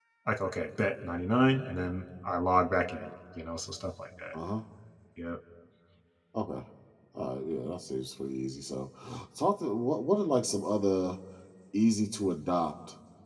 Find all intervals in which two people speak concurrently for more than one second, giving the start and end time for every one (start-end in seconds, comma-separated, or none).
none